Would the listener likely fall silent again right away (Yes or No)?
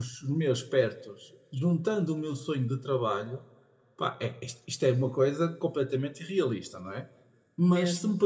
Yes